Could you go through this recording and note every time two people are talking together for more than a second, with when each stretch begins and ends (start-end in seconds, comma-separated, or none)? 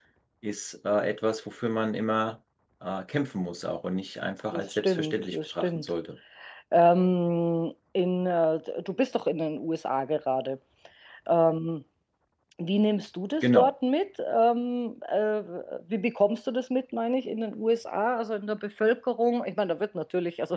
4.5-5.9